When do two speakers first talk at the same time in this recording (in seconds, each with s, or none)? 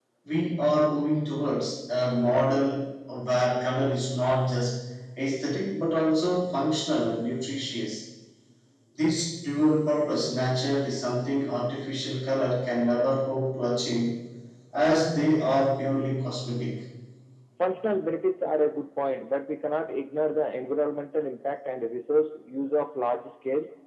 none